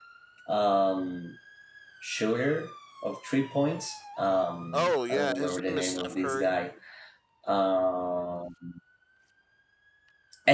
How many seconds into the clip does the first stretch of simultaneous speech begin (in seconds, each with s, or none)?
4.7 s